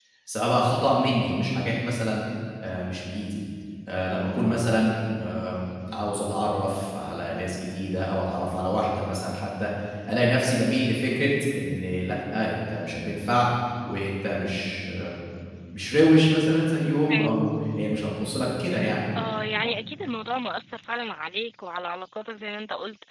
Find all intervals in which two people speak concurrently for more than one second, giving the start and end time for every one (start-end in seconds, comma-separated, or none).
none